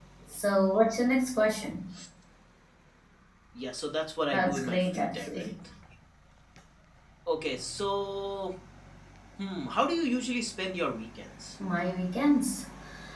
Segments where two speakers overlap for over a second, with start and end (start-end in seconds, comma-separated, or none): 4.3-5.5